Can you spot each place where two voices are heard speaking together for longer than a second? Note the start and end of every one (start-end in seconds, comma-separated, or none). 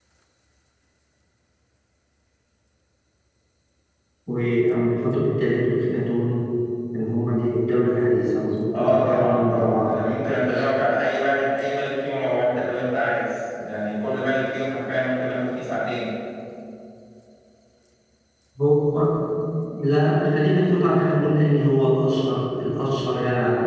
8.7-9.9